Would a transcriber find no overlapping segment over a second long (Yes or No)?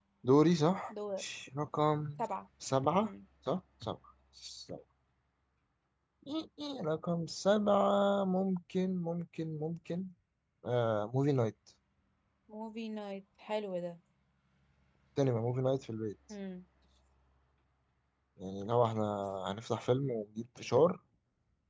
Yes